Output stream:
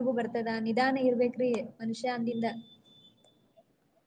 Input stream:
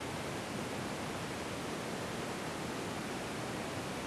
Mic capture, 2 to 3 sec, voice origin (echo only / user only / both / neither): neither